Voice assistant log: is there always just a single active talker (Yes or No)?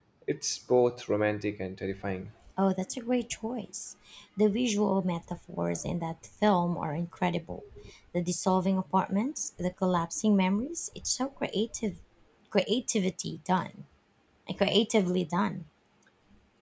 Yes